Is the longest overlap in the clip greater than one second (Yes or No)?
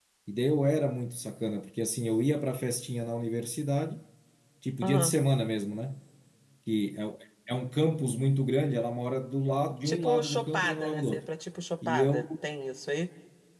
Yes